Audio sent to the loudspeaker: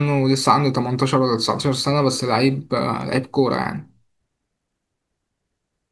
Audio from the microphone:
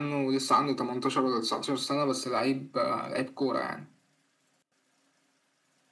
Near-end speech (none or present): none